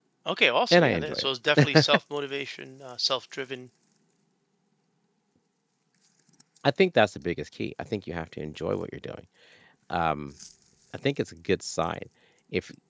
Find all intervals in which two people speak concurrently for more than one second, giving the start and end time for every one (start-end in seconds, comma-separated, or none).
none